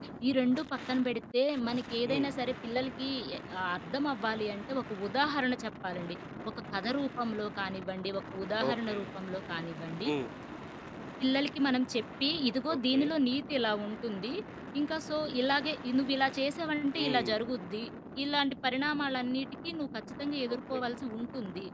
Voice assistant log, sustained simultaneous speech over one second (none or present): none